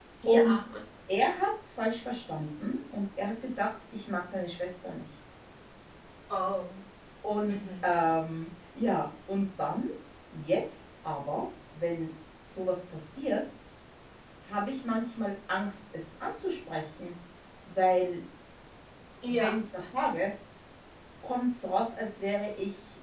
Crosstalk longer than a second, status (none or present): none